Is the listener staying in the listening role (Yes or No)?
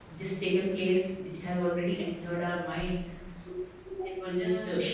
Yes